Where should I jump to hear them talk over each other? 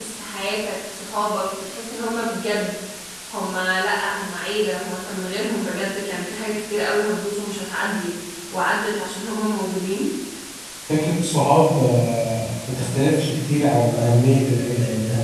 none

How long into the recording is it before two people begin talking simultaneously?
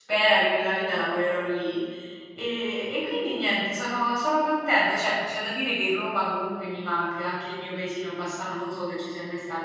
none

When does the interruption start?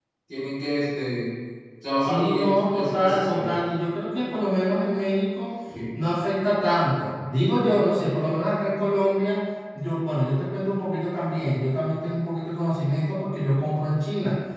2.0 s

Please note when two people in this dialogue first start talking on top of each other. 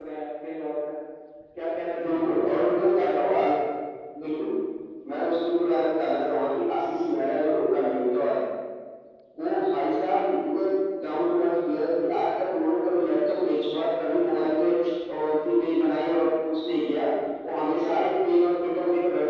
2.0 s

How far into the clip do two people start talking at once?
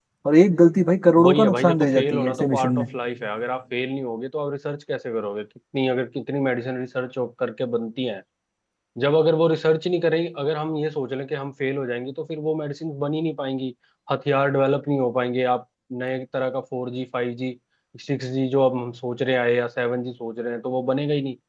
1.2 s

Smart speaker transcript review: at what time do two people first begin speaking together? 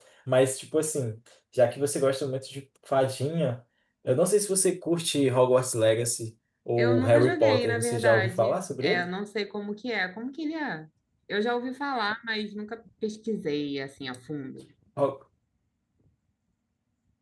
6.8 s

